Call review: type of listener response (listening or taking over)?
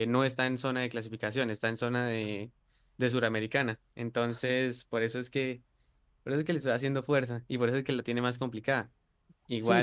taking over